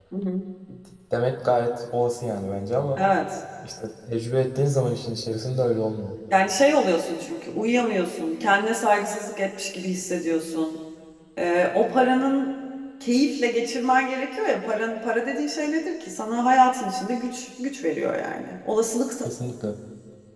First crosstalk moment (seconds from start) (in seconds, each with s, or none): none